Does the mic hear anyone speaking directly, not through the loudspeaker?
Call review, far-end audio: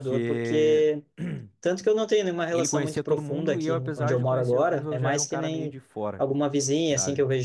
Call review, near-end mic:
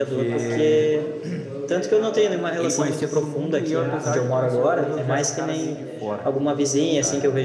Yes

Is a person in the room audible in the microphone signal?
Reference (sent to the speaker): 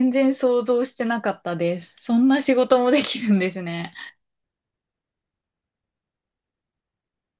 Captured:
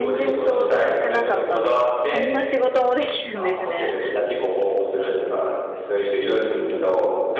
Yes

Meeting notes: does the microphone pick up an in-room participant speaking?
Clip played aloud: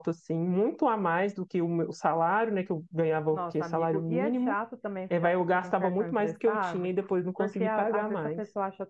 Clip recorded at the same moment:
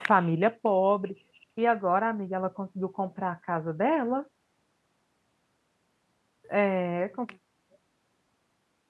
Yes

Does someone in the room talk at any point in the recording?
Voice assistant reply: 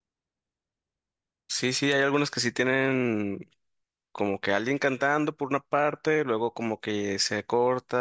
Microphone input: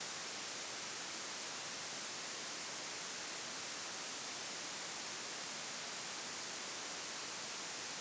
No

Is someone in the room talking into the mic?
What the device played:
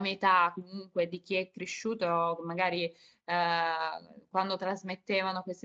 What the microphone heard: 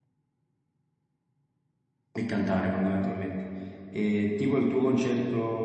Yes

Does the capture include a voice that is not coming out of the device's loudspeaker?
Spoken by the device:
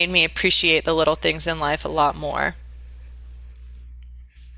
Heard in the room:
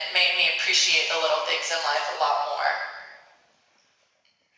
No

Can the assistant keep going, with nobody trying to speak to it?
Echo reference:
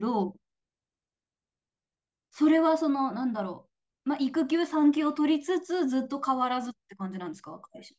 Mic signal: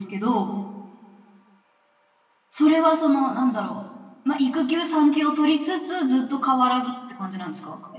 Yes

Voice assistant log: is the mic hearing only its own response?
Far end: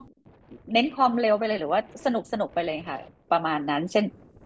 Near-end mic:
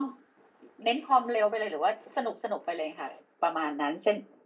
Yes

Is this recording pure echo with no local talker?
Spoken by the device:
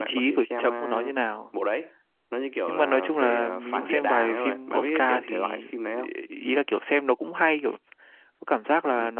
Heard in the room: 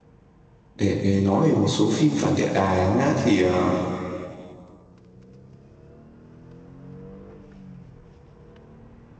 No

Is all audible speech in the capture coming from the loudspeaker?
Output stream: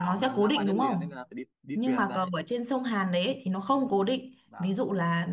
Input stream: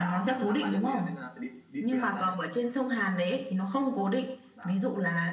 Yes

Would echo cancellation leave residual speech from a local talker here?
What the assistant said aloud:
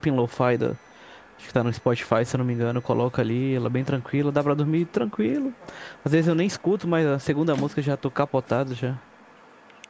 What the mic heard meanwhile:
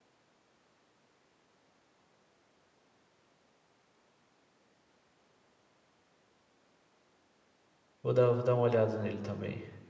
Yes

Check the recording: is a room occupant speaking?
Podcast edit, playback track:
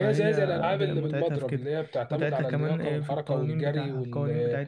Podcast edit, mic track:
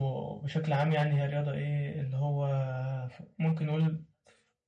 Yes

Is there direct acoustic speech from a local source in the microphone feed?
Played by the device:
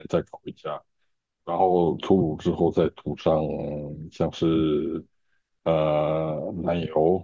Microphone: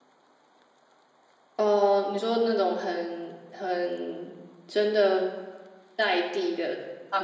Yes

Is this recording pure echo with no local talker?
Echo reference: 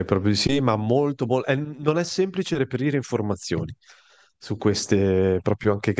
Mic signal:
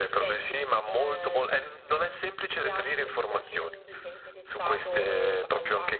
No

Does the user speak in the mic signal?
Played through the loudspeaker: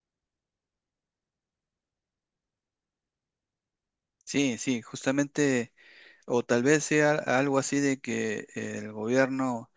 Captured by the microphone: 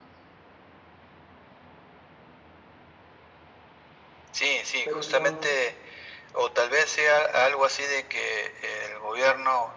Yes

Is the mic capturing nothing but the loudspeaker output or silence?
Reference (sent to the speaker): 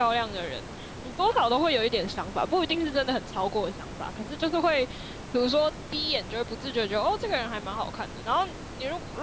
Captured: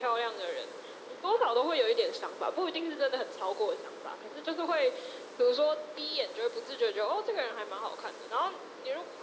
Yes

